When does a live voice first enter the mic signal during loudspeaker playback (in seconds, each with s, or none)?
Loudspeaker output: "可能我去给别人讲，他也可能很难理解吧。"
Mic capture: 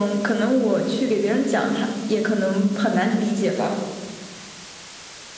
none